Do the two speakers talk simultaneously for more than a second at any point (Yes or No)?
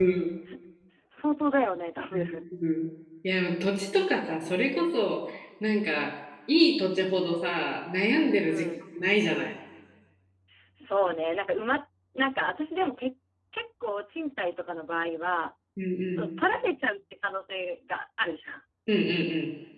No